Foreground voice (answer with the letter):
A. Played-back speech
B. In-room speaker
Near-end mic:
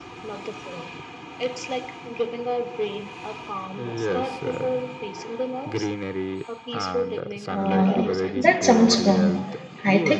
B